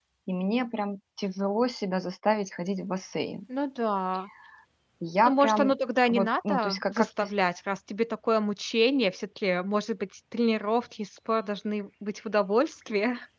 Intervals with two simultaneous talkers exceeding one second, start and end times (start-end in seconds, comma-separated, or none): 6.1-7.3